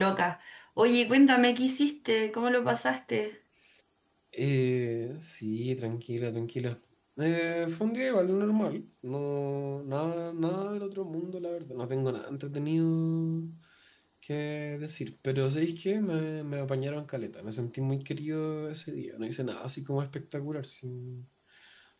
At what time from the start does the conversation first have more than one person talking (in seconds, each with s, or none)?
none